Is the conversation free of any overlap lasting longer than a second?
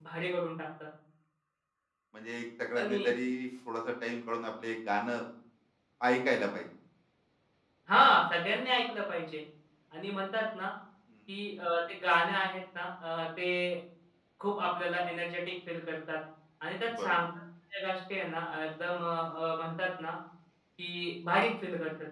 Yes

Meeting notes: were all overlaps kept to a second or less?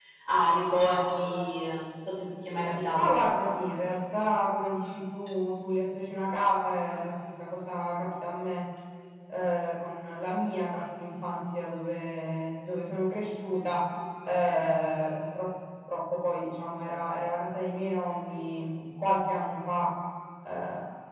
Yes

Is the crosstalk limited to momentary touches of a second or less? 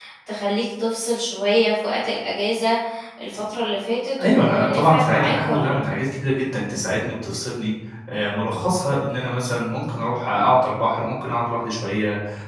No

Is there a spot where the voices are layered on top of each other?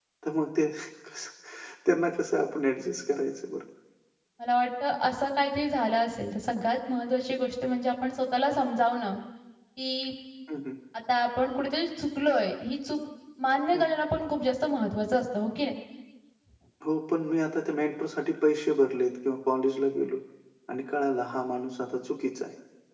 No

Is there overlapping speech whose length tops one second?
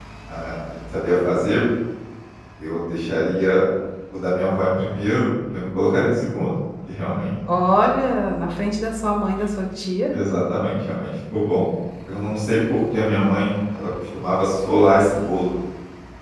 No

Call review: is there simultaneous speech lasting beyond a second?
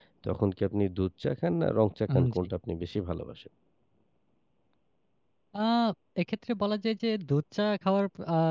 No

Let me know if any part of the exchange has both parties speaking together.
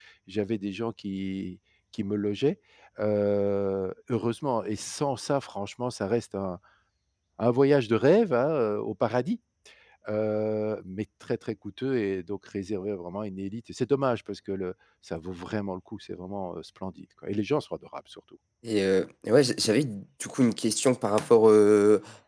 No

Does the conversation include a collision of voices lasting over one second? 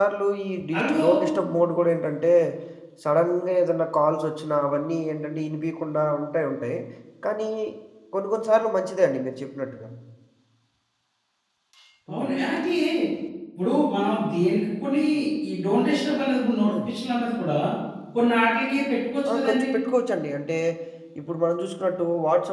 No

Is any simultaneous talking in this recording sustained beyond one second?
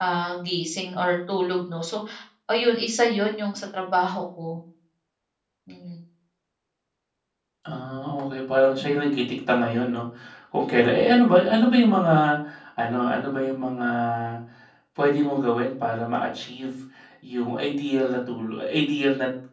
No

